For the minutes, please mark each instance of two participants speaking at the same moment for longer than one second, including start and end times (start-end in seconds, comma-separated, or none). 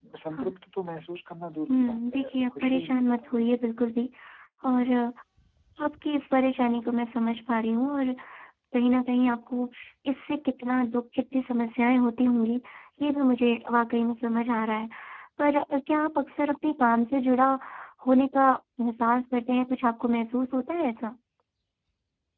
1.7-3.6